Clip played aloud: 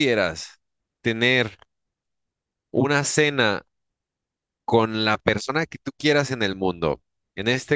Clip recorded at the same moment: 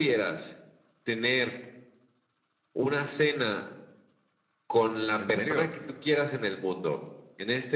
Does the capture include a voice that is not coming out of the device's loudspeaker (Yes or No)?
Yes